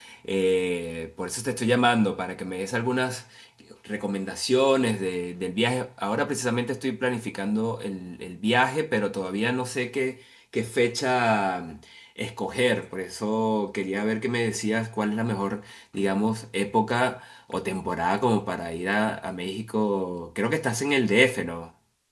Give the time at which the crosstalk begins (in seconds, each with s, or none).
none